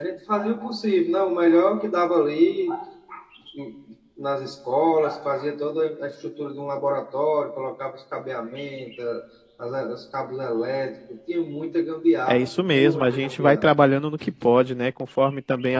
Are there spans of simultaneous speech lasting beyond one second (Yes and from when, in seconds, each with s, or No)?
Yes, from 12.3 s